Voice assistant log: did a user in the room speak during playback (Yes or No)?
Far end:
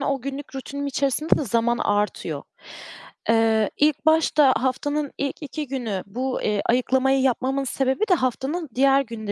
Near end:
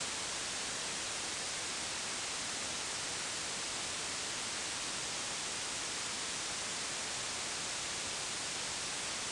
No